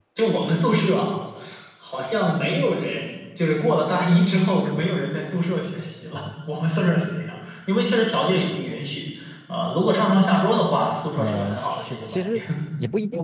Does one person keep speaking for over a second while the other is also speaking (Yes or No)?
Yes